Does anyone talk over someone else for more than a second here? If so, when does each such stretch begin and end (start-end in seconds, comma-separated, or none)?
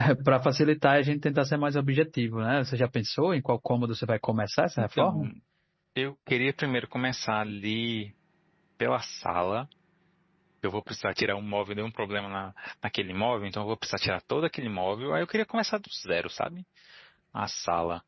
none